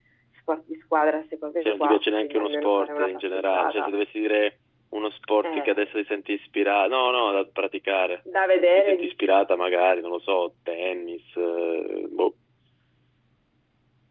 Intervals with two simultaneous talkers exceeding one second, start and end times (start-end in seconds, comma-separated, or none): 1.6-3.9